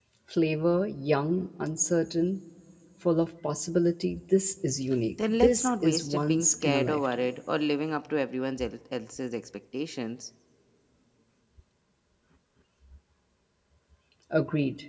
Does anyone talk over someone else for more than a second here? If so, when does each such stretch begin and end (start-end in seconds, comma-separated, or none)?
5.4-7.3